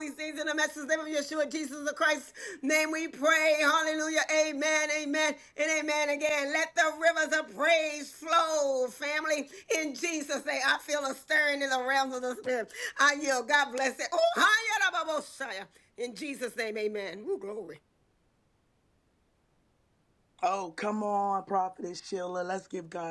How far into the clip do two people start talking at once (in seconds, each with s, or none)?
none